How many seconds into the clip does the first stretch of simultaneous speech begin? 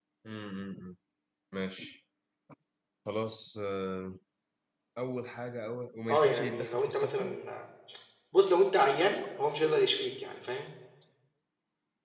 6.1 s

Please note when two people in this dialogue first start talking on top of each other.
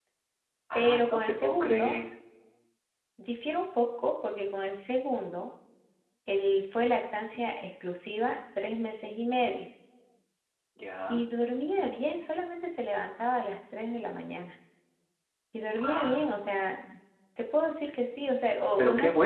0.7 s

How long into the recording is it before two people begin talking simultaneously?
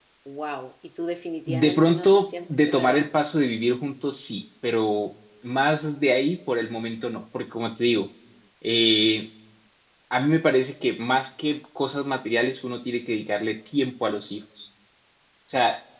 1.5 s

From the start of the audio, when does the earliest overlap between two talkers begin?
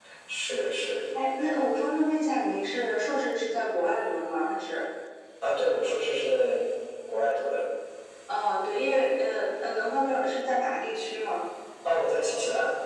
none

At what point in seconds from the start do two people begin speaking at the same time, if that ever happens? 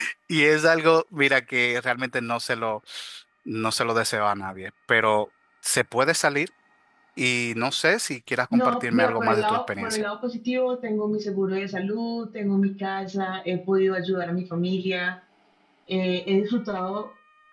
8.5 s

